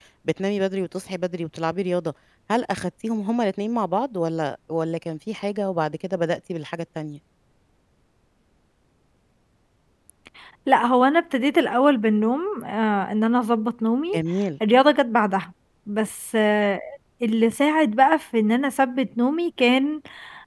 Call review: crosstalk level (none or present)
none